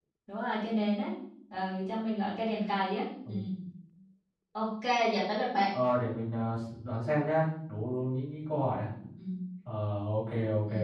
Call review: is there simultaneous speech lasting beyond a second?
No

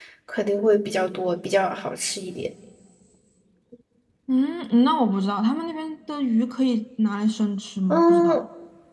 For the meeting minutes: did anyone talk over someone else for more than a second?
No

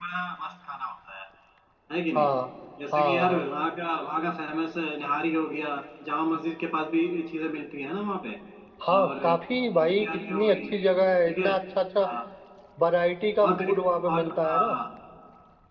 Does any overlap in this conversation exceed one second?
Yes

